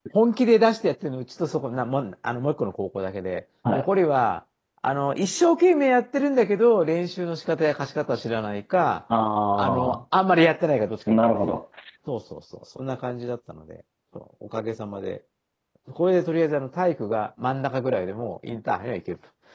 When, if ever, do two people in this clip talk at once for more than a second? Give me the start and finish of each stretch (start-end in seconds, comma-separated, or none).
none